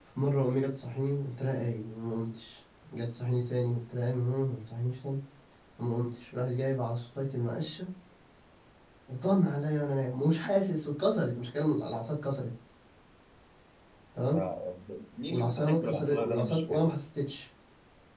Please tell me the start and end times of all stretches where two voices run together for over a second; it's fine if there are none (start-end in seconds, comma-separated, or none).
15.3-16.8